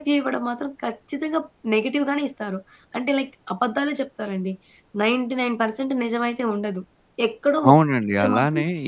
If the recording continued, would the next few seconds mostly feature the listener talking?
Yes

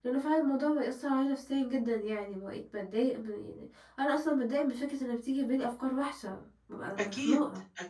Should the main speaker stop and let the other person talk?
Yes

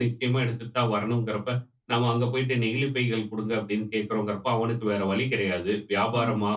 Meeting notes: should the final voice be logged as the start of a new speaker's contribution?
No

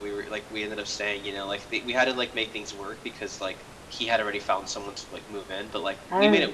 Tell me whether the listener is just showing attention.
Yes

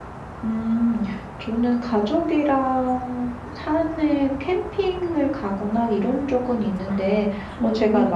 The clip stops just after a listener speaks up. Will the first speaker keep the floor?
Yes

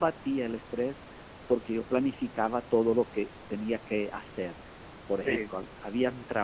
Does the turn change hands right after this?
No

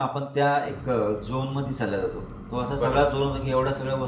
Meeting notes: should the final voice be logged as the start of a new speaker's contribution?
No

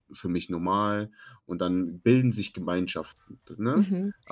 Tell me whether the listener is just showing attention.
No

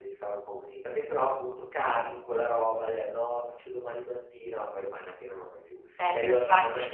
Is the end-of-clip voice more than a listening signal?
No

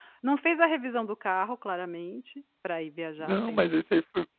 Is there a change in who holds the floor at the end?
Yes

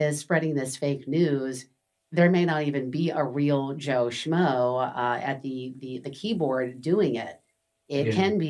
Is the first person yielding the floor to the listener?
No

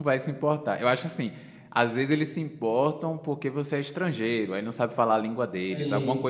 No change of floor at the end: Yes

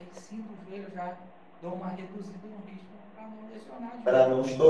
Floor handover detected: Yes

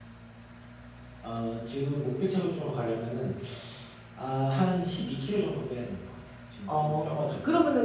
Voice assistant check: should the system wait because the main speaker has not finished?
No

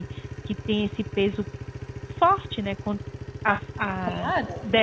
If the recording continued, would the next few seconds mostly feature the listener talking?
No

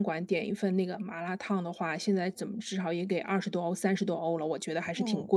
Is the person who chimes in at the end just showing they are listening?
No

